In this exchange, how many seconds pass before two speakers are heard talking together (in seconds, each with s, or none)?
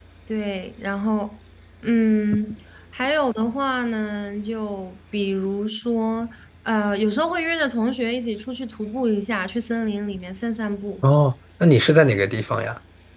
none